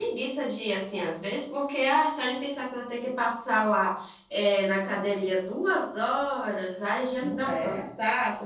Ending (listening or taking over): listening